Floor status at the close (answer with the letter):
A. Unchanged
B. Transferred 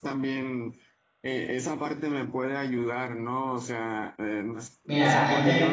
B